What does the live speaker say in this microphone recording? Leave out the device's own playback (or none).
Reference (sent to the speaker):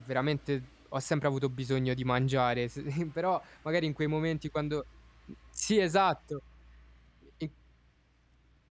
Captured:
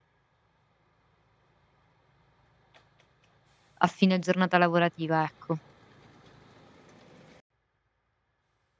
a fine giornata lavorativa, ecco?